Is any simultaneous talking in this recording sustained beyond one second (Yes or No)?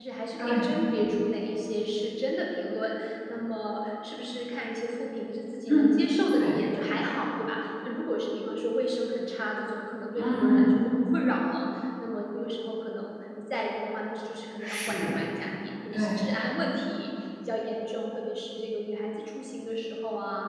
No